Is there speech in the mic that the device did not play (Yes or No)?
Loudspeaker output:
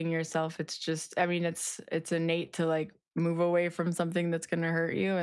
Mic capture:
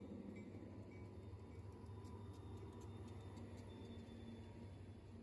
No